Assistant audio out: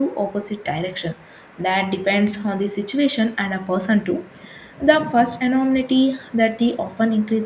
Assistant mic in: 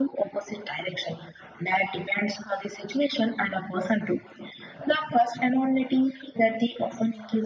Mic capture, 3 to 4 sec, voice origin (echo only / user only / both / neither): echo only